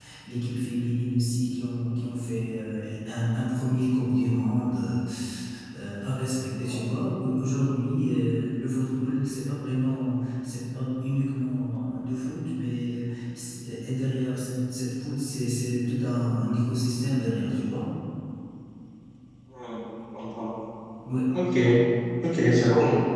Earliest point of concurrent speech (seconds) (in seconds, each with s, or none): none